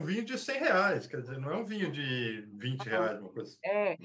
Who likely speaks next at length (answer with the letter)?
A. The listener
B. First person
A